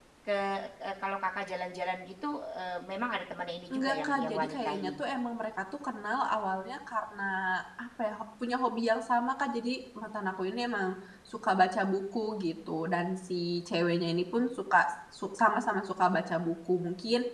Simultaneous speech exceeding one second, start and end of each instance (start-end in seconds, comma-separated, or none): 3.7-4.9